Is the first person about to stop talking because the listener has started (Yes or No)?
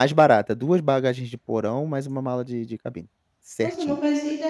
Yes